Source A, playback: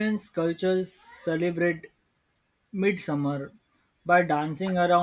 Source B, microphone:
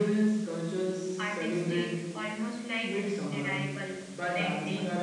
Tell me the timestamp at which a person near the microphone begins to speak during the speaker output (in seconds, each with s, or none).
1.2 s